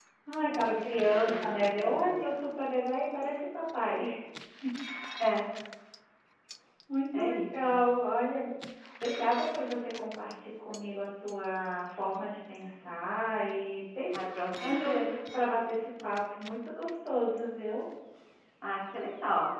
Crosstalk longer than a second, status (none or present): present